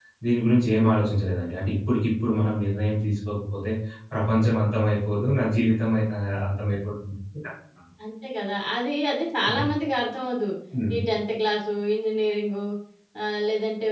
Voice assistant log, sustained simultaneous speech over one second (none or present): none